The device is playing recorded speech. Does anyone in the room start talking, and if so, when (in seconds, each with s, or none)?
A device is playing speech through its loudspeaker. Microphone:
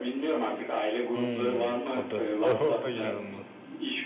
1.1 s